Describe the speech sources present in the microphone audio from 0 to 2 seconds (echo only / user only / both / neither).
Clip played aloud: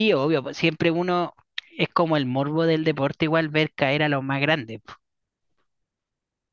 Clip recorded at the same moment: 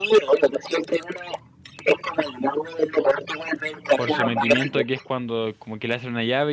echo only